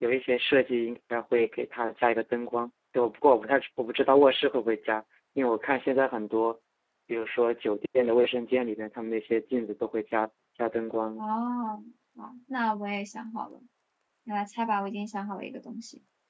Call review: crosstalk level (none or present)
none